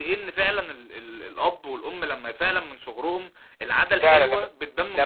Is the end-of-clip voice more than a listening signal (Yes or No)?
Yes